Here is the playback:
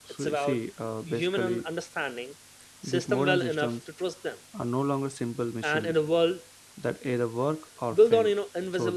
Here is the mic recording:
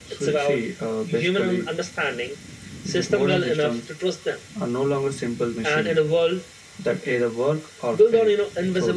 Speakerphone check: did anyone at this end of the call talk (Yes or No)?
No